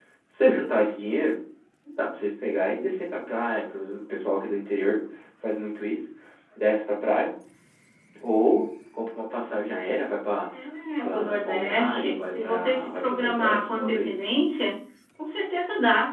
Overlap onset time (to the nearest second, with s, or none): 11 s